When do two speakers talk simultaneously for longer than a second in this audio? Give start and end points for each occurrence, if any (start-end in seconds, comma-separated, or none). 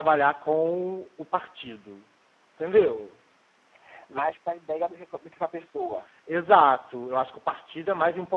none